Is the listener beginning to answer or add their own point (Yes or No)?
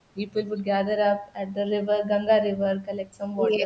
No